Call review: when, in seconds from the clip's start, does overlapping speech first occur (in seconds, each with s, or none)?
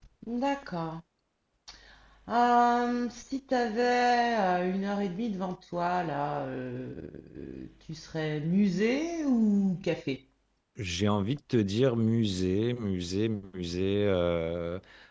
none